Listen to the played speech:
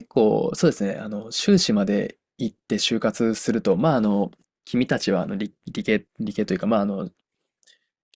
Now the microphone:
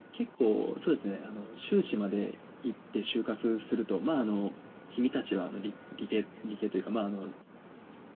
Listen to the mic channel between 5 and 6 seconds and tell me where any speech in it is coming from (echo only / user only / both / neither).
echo only